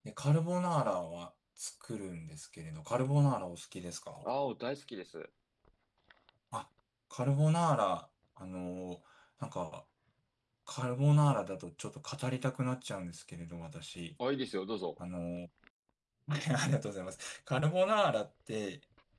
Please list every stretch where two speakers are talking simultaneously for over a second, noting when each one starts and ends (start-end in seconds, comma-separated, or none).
none